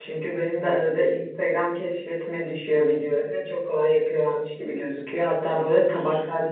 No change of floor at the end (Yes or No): Yes